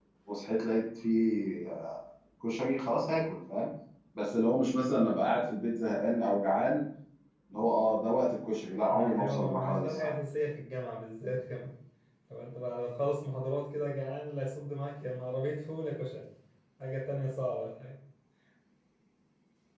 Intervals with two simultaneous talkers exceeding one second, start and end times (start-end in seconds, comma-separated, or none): 8.9-10.1